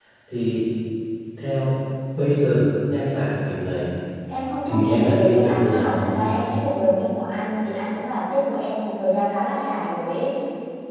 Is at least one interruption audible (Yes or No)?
Yes